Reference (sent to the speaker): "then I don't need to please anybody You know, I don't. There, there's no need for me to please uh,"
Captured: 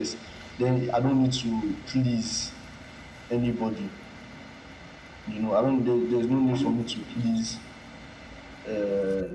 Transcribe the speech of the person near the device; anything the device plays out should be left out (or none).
How many sessions?